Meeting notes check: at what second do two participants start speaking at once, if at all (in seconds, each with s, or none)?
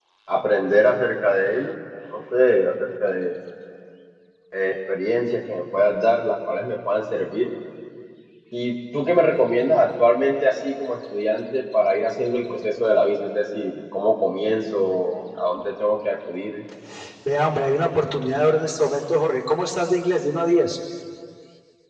none